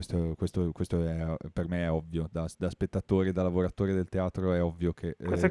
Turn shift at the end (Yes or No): Yes